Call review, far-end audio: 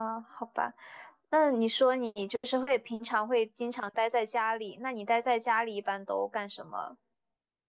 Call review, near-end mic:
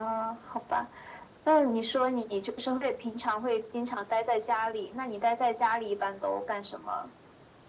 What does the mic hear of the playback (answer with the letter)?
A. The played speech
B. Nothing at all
A